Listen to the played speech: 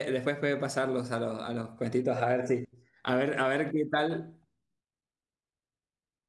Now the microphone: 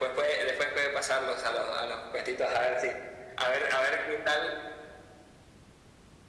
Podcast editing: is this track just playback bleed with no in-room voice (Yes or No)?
Yes